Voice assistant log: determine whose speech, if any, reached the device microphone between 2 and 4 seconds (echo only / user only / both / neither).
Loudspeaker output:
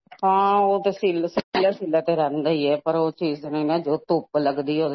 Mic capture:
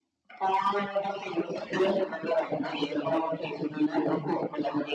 echo only